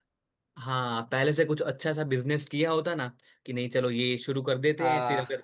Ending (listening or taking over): listening